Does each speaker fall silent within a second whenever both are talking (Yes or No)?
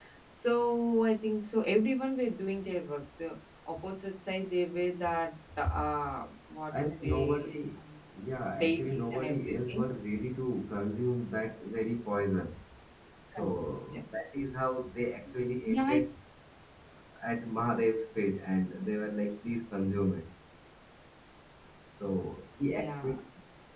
No